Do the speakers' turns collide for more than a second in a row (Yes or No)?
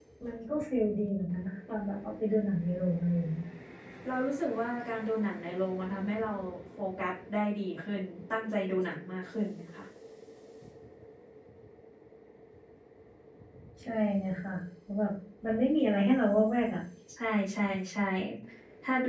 No